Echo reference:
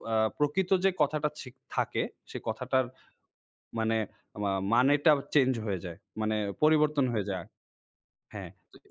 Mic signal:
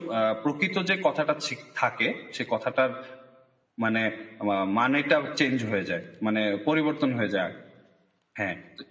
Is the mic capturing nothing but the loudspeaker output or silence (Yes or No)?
Yes